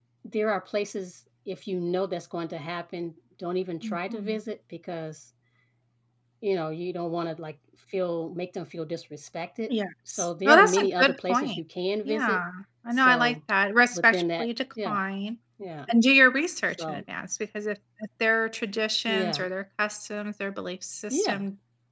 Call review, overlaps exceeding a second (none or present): present